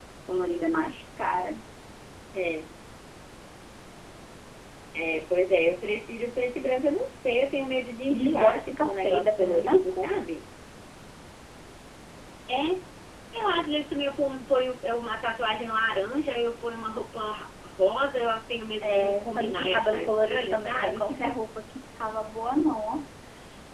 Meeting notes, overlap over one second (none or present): present